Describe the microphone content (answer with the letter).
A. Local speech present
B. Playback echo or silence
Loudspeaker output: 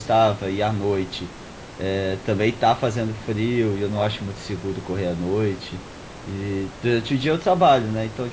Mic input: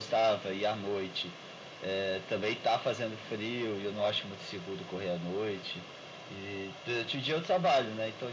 B